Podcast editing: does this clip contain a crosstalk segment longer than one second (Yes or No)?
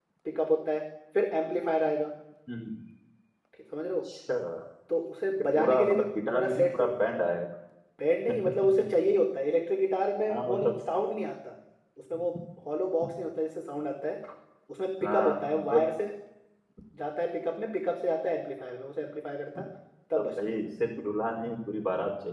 Yes